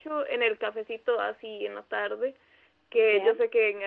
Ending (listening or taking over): listening